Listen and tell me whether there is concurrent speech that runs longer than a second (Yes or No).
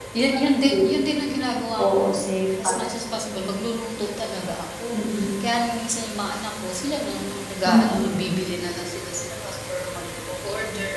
No